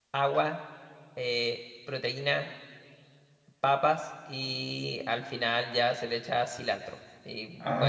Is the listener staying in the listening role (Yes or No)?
Yes